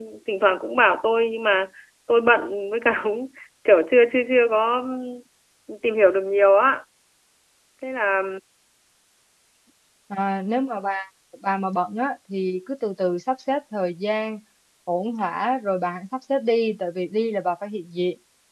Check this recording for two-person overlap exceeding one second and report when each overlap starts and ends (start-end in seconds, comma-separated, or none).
none